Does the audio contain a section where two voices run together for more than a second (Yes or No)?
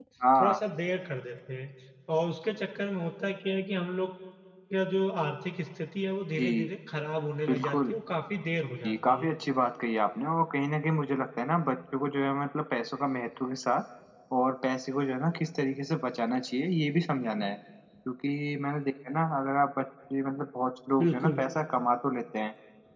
No